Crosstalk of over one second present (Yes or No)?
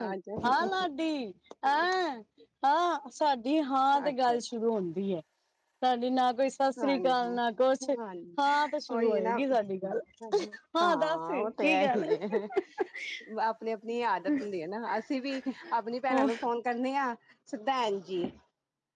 Yes